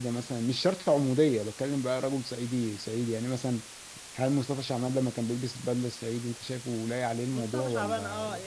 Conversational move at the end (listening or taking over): taking over